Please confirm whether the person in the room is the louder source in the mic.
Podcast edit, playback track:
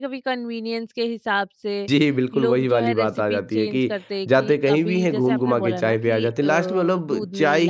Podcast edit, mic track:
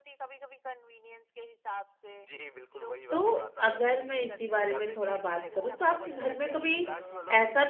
Yes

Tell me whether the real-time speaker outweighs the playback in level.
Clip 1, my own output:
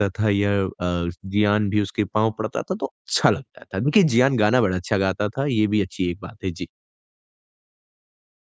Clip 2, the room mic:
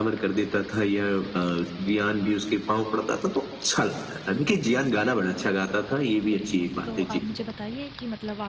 No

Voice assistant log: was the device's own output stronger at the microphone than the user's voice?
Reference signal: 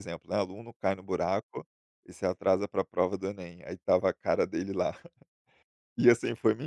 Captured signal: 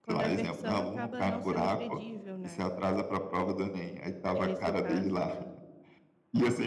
Yes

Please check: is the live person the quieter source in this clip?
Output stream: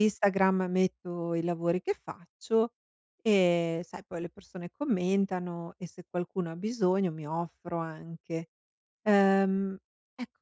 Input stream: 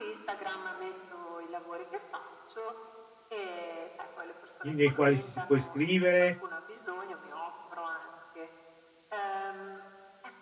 No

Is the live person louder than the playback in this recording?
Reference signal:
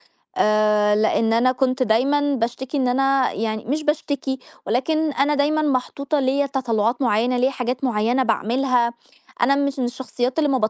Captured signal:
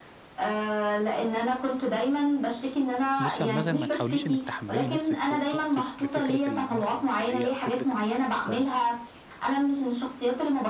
No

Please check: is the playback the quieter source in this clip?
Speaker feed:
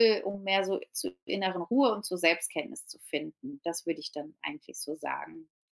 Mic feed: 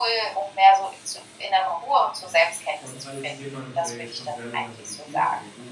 No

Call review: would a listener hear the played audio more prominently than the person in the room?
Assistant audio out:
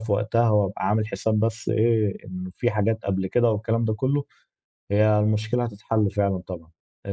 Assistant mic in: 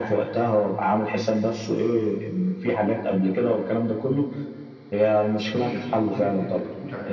Yes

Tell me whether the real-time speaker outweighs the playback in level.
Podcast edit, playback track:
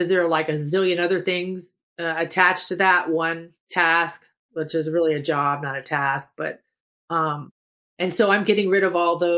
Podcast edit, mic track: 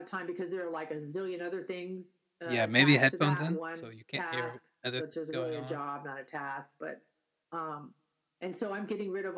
Yes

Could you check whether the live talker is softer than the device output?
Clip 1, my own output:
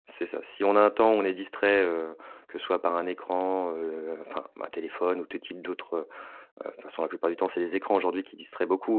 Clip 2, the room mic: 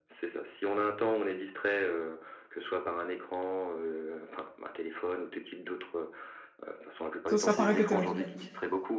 No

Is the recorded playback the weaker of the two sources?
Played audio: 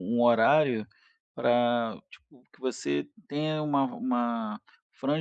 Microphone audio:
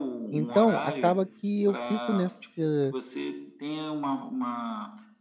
Yes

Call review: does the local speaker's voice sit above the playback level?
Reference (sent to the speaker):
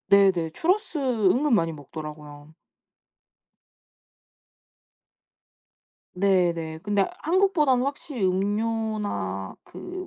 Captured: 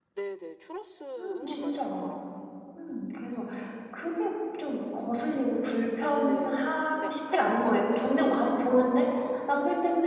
Yes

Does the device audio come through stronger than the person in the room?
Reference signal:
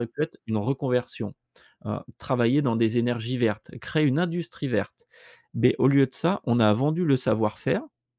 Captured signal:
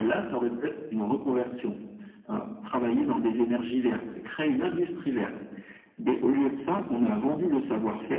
Yes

